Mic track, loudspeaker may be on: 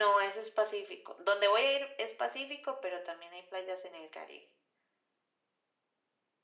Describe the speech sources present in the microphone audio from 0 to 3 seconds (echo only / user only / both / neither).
echo only